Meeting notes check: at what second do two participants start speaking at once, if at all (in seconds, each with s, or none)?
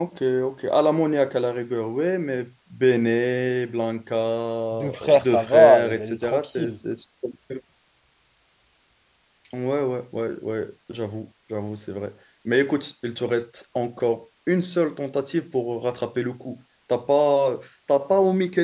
4.7 s